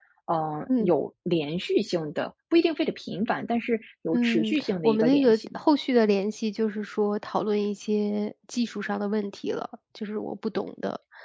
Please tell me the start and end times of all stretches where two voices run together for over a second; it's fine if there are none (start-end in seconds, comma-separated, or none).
4.1-5.6